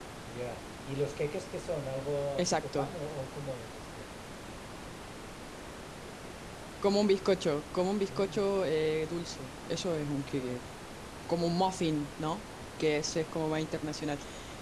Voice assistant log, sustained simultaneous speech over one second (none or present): none